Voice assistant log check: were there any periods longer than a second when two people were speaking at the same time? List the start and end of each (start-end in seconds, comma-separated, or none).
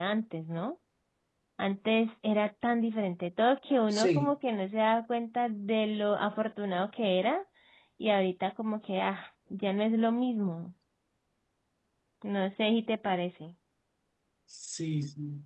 none